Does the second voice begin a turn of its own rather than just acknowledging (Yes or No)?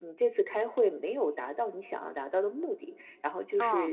No